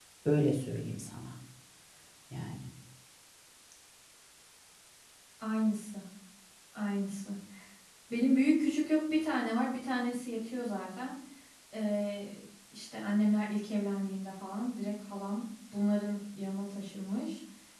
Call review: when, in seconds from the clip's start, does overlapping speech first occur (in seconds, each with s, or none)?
none